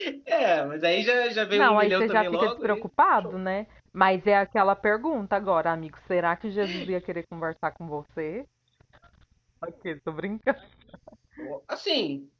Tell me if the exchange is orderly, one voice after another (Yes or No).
No